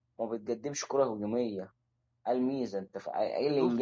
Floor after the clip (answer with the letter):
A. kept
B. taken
A